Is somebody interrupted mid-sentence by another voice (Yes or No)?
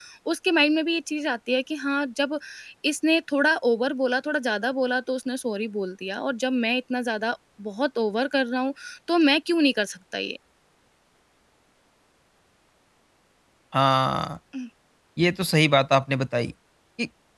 No